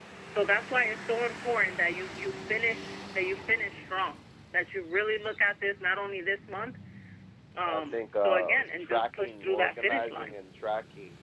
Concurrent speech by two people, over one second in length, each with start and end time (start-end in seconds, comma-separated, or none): 7.7-10.3